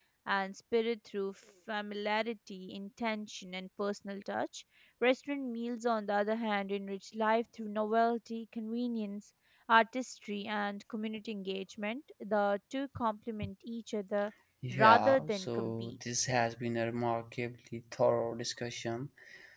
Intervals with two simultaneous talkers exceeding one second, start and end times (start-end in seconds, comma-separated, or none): 14.7-16.0